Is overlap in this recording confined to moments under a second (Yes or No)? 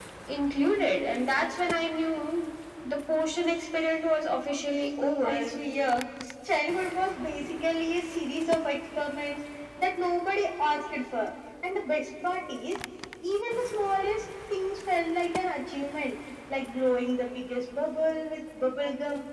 Yes